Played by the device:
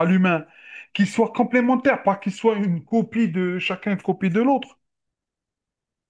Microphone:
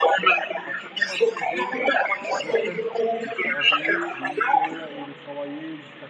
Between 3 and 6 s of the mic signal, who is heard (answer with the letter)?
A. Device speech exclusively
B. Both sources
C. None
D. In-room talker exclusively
B